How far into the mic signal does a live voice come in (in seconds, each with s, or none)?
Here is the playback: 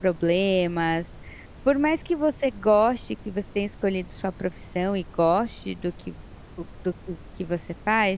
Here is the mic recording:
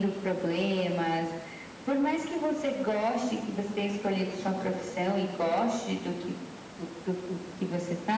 none